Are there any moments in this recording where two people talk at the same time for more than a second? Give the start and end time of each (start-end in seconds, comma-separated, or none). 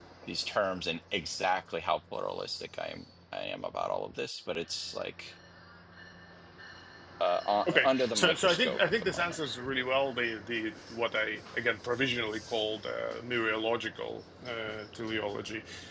7.7-9.4